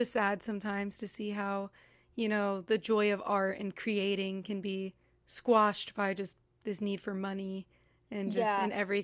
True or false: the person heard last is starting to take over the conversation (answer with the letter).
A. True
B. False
A